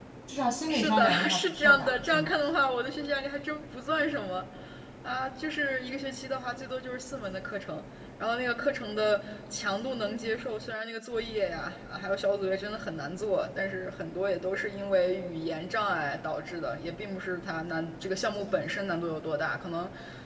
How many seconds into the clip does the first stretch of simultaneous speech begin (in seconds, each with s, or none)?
0.7 s